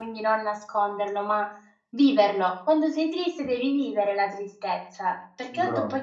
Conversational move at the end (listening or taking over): listening